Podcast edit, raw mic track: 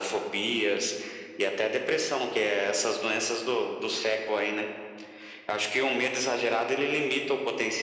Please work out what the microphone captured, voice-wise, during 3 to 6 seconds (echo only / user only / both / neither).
echo only